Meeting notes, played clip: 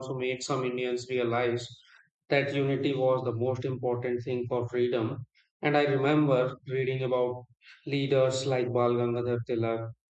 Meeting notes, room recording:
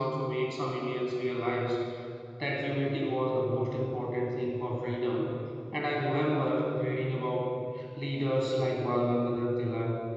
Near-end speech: none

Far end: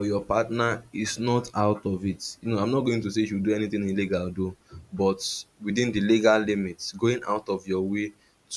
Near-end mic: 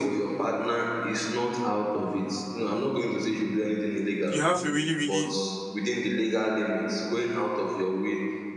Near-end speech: present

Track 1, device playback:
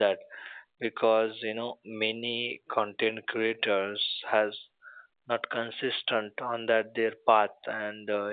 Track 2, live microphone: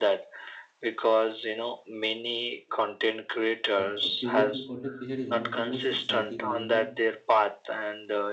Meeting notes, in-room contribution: present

